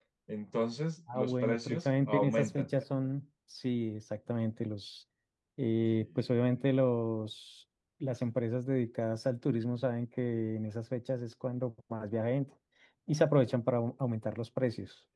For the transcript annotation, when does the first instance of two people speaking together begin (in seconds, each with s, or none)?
1.1 s